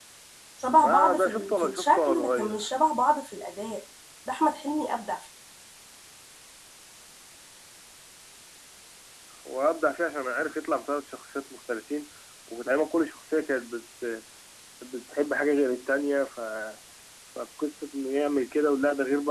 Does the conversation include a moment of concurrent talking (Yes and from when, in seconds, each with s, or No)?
Yes, from 0.8 s